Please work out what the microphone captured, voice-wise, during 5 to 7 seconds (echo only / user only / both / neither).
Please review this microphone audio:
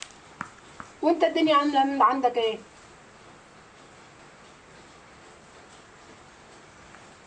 neither